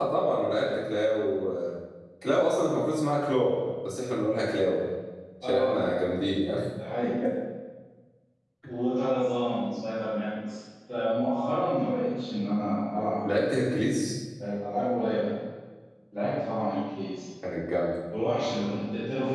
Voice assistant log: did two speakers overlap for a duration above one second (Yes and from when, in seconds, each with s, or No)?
No